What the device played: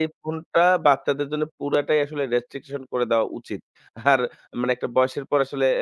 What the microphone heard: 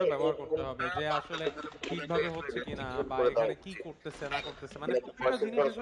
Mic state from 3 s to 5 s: both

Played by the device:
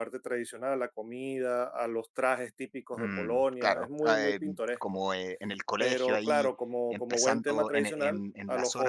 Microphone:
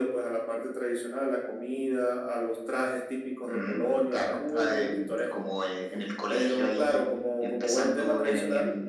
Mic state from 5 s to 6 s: echo only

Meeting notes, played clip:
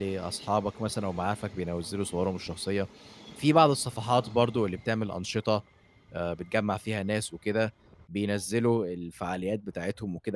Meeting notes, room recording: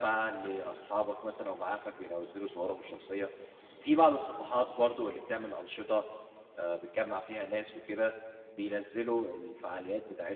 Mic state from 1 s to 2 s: echo only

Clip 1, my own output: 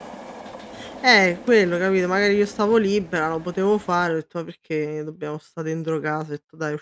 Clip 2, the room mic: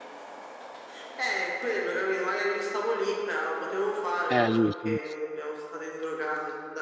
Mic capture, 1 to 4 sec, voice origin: echo only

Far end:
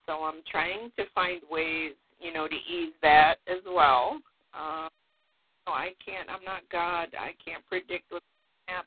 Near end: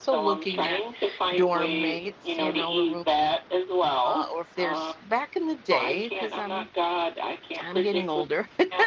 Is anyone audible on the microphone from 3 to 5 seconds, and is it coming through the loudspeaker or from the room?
both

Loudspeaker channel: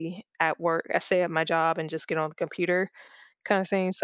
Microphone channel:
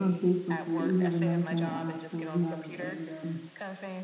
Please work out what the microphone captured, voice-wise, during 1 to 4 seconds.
both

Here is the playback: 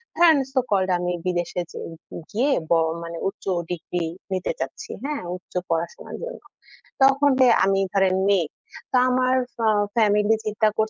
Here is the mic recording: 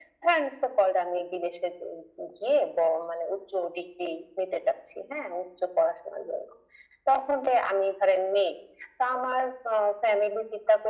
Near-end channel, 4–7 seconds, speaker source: echo only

